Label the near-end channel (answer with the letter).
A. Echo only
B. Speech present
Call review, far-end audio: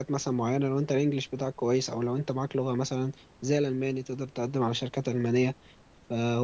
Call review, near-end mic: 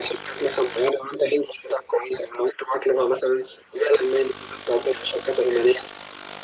A